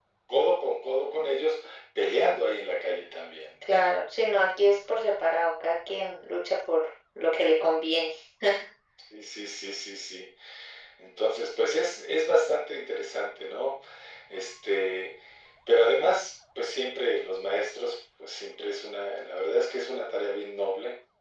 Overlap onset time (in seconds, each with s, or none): none